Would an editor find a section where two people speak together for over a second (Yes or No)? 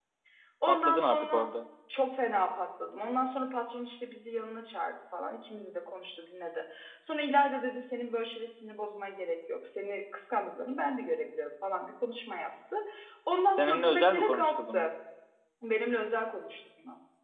Yes